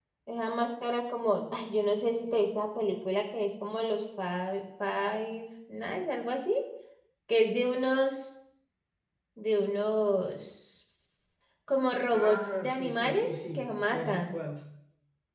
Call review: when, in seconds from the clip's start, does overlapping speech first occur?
12 s

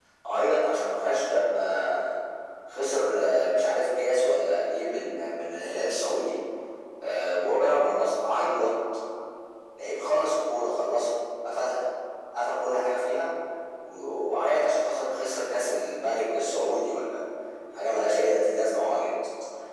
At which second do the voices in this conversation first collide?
none

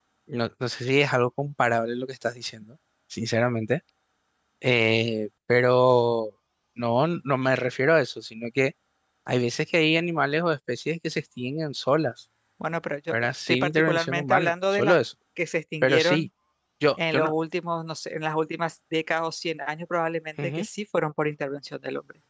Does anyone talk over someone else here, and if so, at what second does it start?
13 s

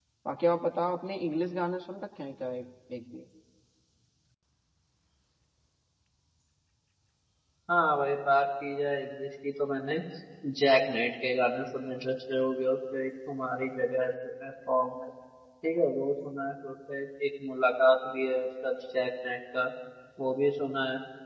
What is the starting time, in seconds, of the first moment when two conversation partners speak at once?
none

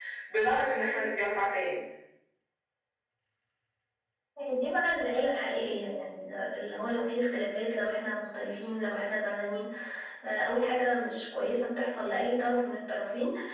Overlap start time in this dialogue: none

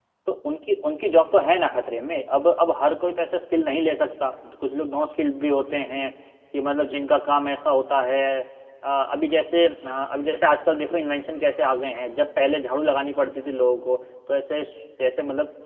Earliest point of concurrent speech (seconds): none

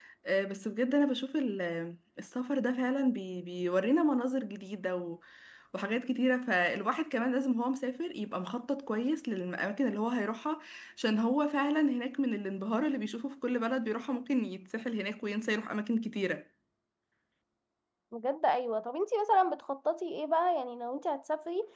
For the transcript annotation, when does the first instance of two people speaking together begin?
none

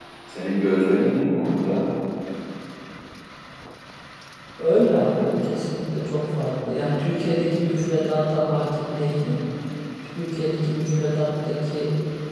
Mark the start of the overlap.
none

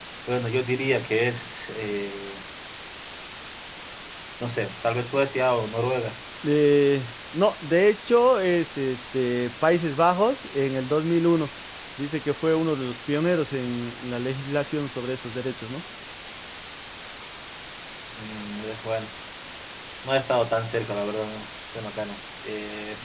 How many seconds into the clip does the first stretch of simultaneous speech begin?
none

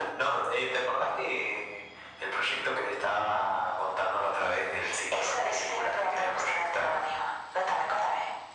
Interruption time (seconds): 5 s

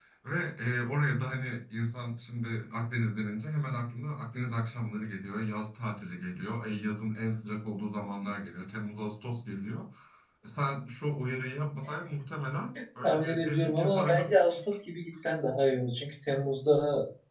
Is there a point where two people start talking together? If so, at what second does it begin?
13 s

